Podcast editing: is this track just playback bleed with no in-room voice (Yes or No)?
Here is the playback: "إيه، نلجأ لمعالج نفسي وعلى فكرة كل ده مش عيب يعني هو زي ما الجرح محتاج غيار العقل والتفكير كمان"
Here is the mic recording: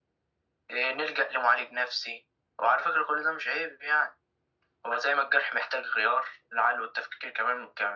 Yes